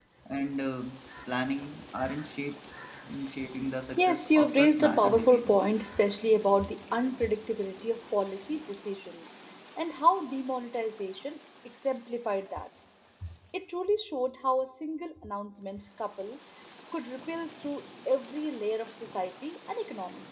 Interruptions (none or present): present